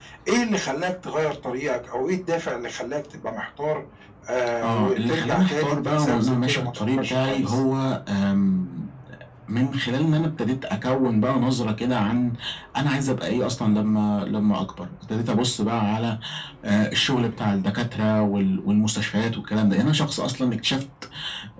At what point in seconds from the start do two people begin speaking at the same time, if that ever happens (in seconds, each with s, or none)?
4.6 s